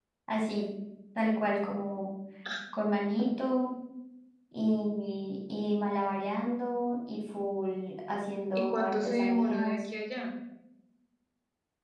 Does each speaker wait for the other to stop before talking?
No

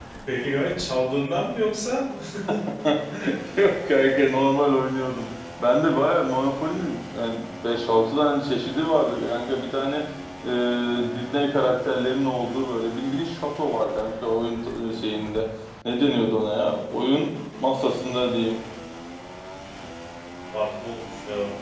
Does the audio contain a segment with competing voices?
No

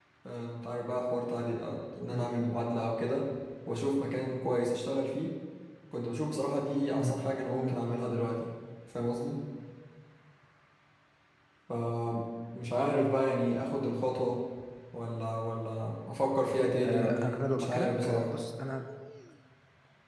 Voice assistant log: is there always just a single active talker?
No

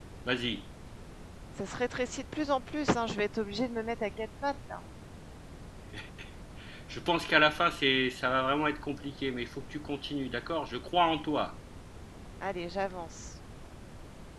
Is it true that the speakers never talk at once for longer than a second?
Yes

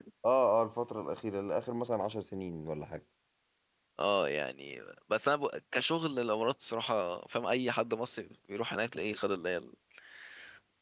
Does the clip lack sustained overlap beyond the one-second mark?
Yes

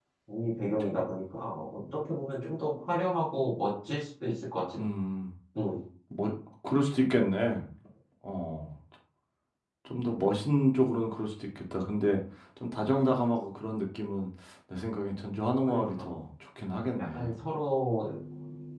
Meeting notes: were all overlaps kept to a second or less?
Yes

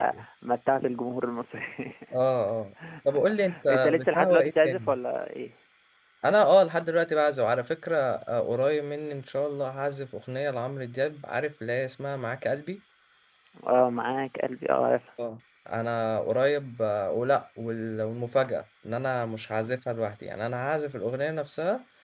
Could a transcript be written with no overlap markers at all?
No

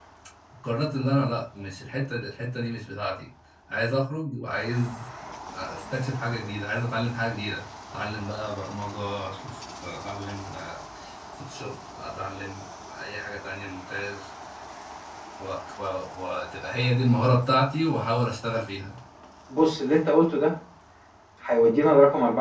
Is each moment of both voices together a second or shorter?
Yes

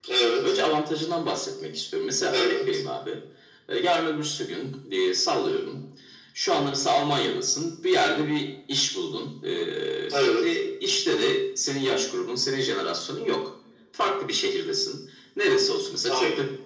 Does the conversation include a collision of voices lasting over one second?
No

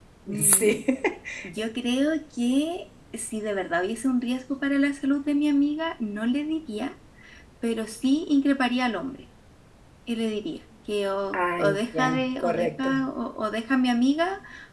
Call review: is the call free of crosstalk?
No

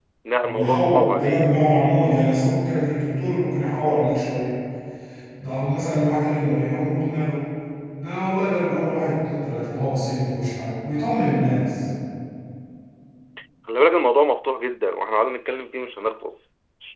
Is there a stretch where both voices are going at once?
Yes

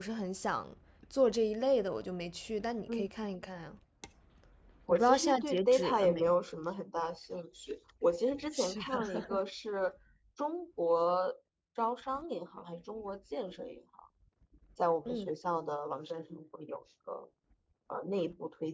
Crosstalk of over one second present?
Yes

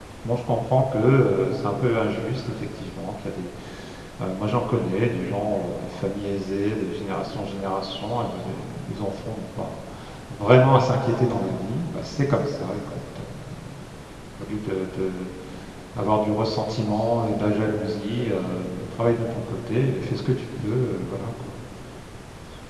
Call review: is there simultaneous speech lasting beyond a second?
No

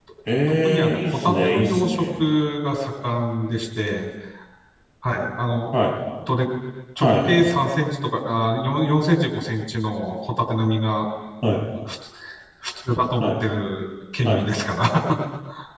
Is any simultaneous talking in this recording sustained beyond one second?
Yes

